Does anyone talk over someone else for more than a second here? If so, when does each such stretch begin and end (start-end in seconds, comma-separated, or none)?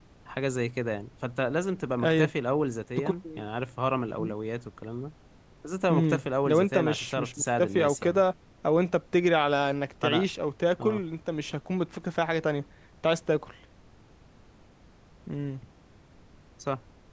5.9-8.2